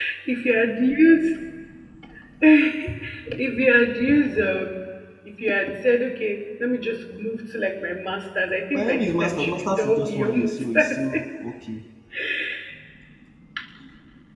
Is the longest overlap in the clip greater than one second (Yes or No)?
Yes